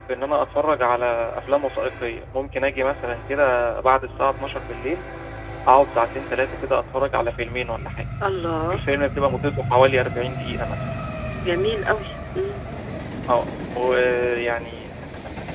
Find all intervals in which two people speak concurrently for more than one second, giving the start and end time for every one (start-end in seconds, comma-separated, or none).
none